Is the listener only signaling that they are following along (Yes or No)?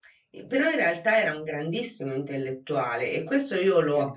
Yes